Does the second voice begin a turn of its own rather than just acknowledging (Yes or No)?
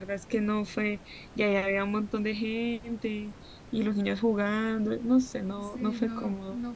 Yes